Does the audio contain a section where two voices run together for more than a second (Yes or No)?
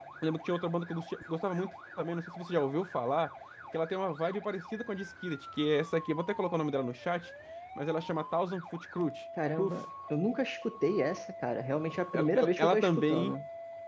Yes